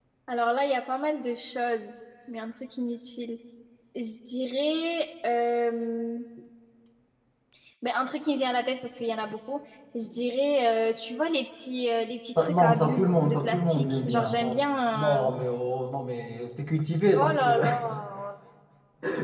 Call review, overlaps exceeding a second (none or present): present